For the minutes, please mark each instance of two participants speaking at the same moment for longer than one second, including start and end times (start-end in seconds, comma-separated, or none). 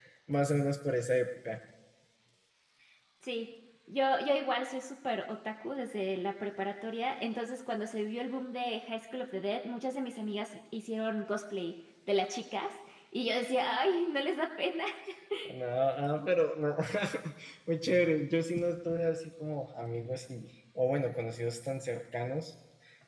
none